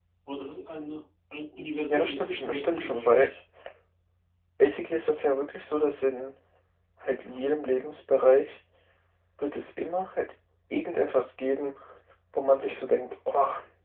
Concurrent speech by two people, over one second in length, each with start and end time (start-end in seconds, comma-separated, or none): 1.9-3.3